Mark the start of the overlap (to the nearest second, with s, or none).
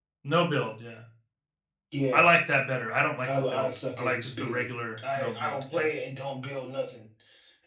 3 s